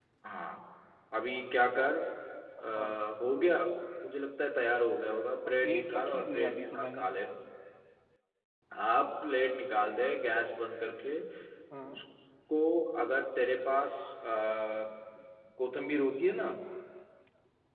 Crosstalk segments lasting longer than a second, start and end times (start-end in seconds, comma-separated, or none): 5.5-7.0